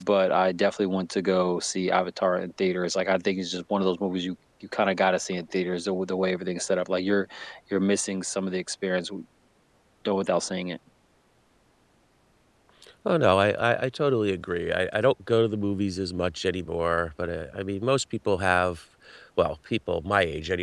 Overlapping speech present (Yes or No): No